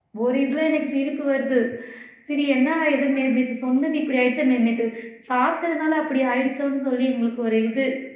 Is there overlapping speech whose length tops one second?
No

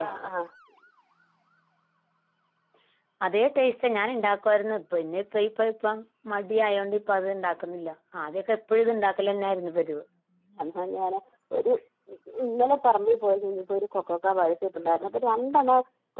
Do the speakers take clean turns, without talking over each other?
Yes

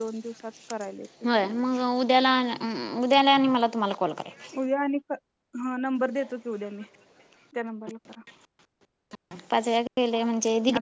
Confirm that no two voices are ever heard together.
Yes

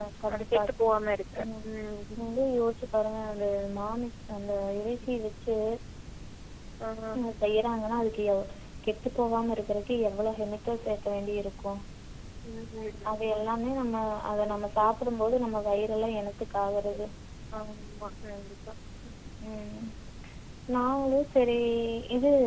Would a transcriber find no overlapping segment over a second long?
Yes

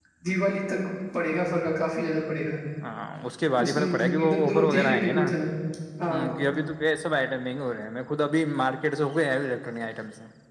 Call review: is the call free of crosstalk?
No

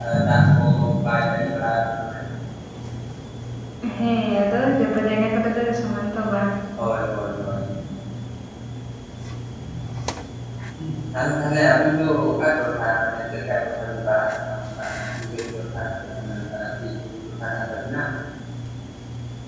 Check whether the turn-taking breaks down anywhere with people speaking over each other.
No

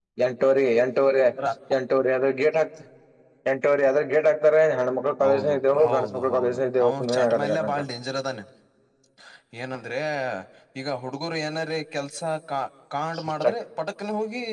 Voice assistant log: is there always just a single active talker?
No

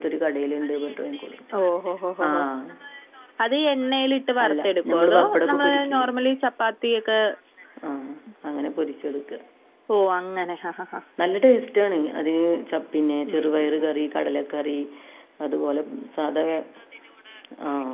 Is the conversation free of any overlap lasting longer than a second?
No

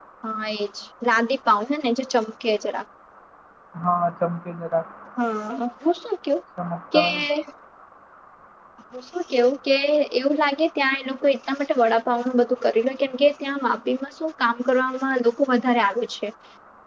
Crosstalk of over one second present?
No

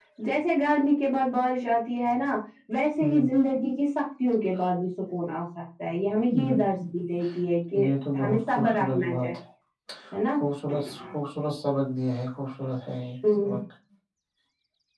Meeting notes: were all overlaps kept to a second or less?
No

